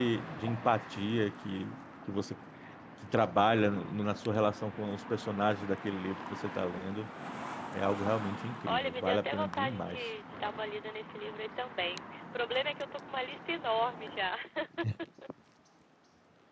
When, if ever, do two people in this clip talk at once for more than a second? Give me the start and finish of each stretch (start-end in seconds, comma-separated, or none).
8.7-10.0